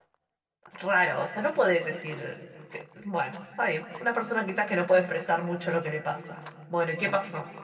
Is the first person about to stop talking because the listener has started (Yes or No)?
Yes